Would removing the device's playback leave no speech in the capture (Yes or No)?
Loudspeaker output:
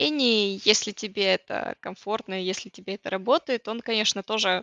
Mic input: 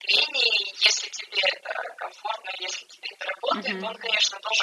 No